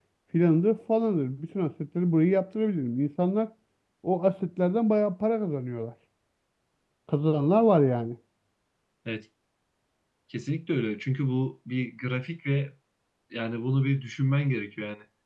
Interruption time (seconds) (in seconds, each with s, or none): none